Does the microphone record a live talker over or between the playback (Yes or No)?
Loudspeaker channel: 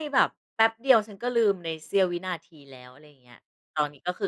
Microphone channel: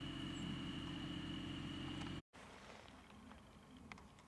No